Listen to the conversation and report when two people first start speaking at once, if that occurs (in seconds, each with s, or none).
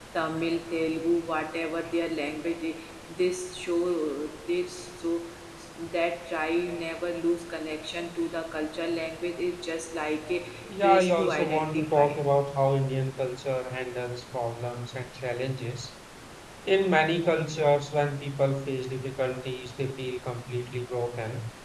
10.8 s